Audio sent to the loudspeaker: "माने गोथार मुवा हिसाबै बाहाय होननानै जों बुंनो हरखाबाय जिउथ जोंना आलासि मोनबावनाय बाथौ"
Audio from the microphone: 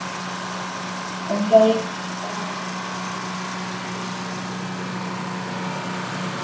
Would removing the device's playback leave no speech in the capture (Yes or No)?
No